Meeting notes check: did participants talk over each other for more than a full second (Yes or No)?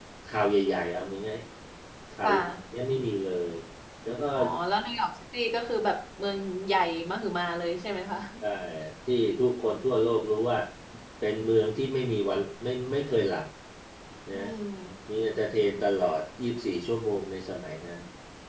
No